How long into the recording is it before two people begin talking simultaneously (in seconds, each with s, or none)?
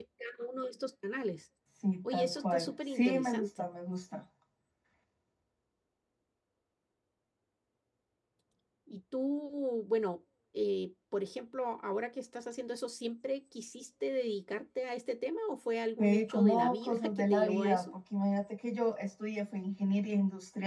2.1 s